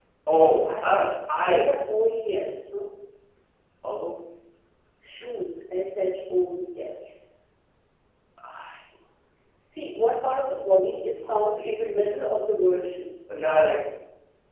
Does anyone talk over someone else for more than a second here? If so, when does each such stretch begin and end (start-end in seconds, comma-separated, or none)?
10.9-12.1